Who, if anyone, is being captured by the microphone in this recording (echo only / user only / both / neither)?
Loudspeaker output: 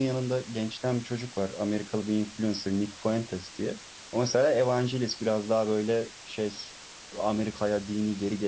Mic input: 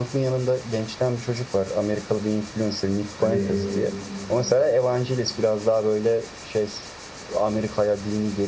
both